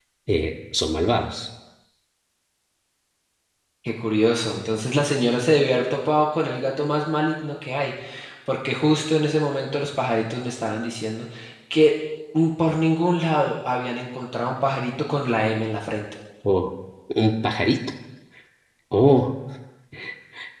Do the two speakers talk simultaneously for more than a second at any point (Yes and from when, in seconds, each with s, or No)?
No